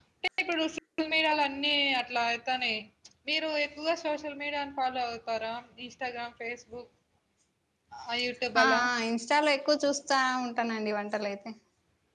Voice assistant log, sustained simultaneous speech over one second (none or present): none